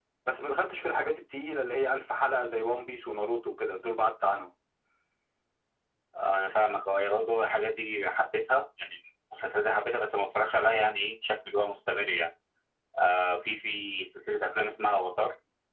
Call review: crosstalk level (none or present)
none